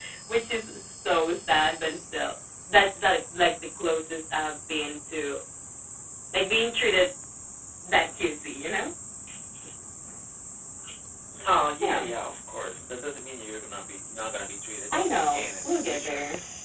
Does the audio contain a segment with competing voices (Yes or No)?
Yes